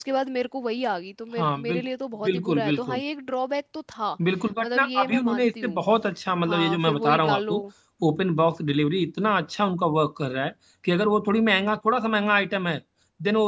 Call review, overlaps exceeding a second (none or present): present